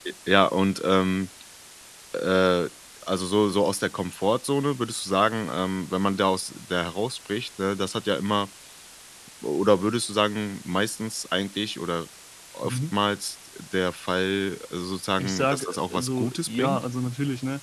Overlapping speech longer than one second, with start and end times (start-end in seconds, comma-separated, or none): 15.2-16.8